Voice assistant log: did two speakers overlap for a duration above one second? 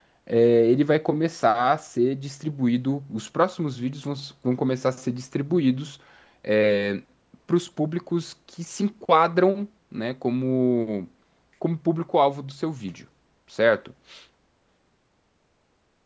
No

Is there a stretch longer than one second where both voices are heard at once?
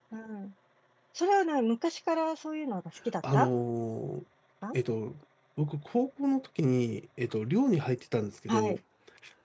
No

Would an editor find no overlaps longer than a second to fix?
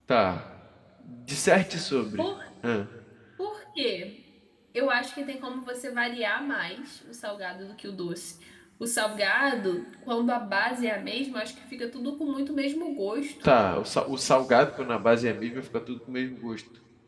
Yes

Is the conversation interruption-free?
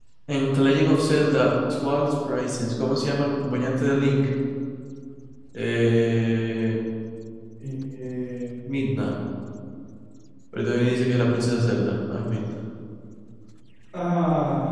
Yes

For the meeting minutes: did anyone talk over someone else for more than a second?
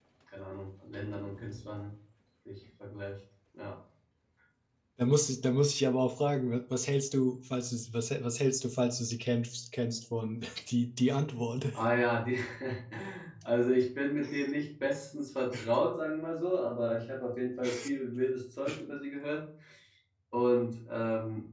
No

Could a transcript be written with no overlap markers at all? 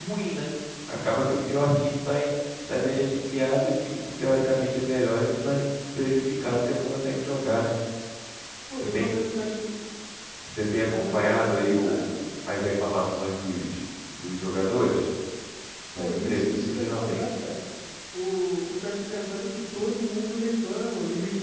No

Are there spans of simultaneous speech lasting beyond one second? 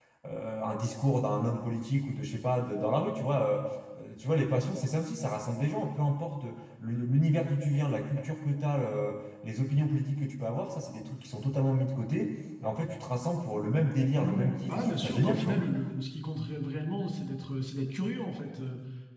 Yes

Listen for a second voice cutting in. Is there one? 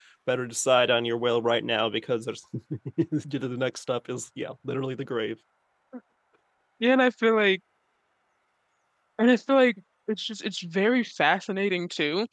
No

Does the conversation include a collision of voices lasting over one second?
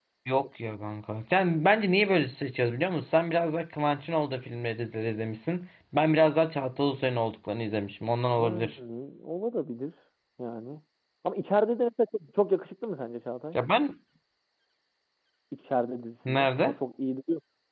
No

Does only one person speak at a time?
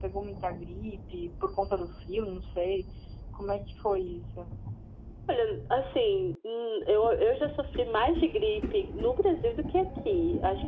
Yes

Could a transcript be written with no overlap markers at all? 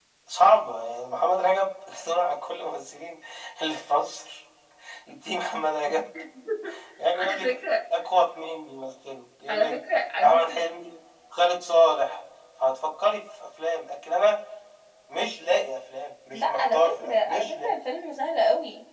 No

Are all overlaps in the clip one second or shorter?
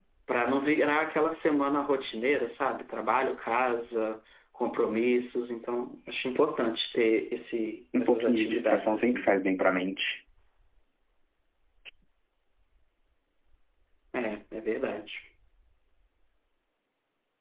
No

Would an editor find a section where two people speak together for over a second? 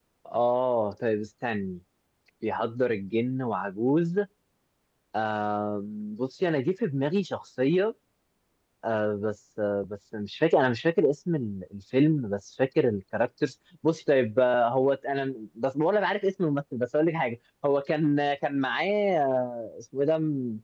No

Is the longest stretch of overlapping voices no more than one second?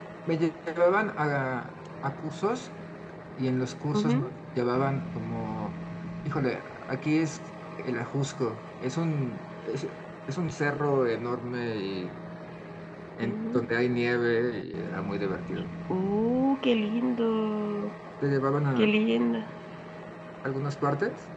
Yes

